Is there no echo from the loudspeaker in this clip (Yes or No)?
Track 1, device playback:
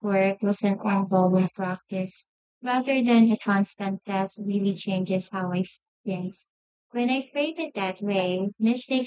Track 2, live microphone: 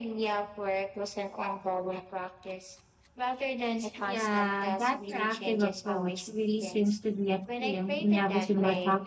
No